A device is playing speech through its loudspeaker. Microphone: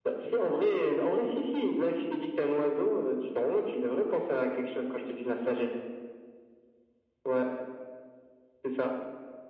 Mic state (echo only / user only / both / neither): echo only